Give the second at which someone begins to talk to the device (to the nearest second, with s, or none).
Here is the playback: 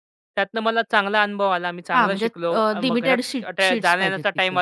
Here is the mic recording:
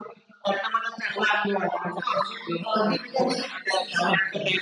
none